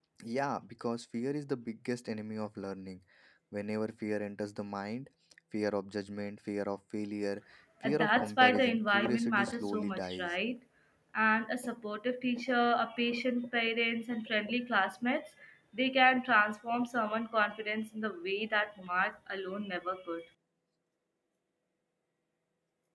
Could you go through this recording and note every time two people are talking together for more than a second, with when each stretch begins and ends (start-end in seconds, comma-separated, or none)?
7.8-10.3